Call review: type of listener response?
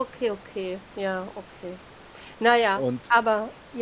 listening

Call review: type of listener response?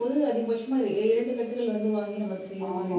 taking over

